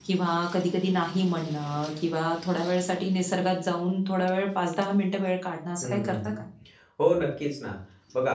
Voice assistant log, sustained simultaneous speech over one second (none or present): none